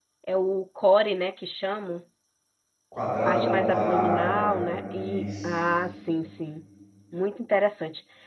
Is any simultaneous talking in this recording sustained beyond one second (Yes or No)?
Yes